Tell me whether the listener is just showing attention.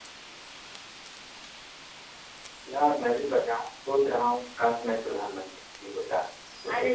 No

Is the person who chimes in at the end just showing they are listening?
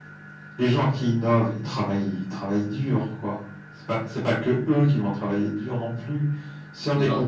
No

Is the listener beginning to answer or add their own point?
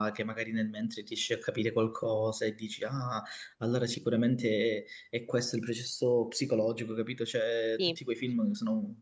No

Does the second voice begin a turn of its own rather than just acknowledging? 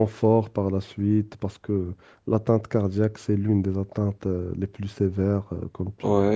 Yes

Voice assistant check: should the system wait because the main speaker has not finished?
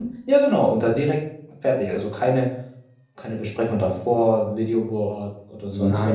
No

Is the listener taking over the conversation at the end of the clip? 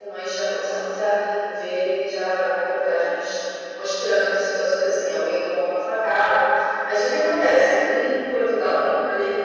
No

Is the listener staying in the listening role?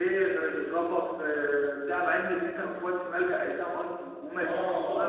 No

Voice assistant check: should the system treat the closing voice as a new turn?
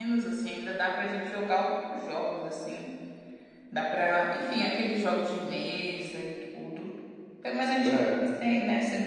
No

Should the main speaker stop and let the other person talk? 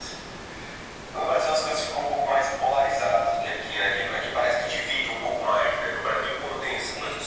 No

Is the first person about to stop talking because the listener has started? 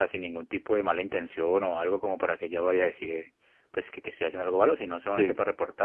No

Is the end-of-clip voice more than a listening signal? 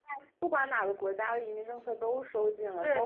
Yes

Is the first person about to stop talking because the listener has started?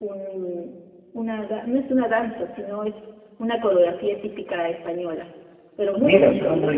Yes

